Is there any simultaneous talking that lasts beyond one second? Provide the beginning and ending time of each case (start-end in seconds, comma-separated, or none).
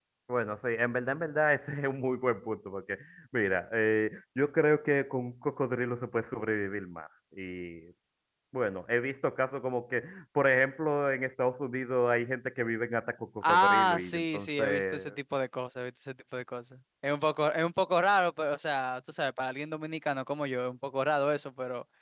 13.5-15.1